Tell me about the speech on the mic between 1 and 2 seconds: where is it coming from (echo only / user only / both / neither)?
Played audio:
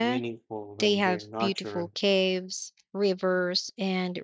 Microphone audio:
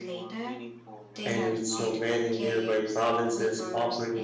both